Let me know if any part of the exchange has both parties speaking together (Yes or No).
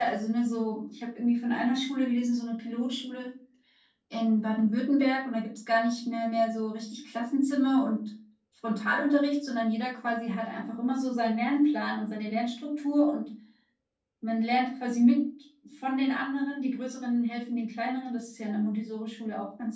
No